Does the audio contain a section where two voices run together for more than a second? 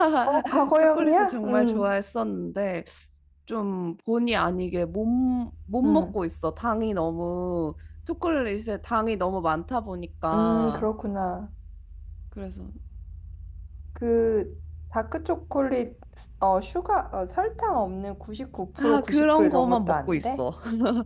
Yes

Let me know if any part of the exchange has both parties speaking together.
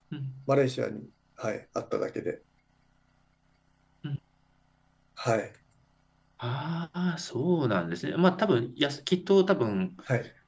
No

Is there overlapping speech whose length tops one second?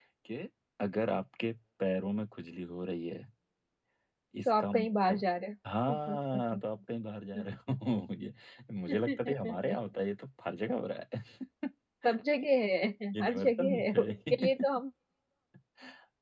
Yes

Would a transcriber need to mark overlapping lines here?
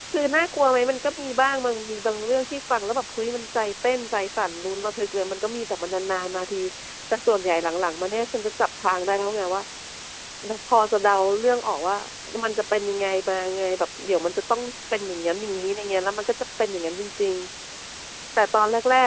No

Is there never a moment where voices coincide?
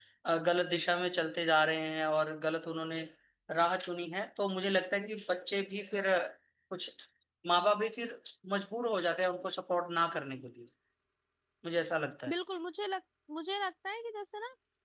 Yes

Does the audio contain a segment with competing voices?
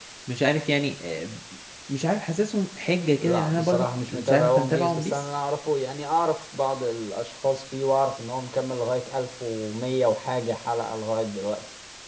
Yes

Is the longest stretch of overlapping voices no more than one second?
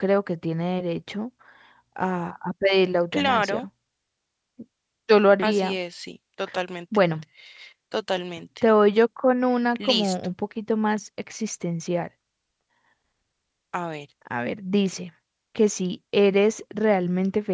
Yes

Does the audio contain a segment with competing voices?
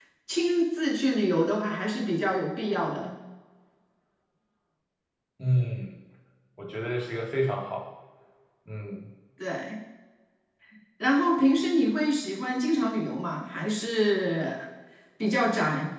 No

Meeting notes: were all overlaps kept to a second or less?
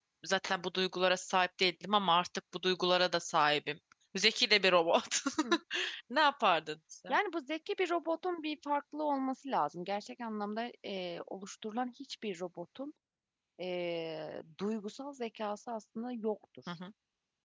Yes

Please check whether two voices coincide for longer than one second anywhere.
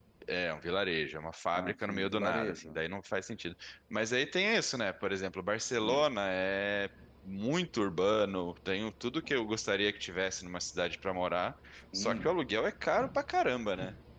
Yes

